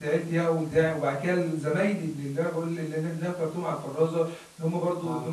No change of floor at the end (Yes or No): Yes